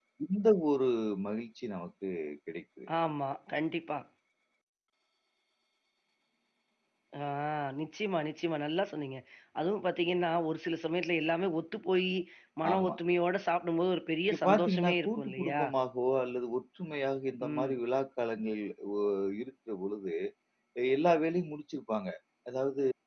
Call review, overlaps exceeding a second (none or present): present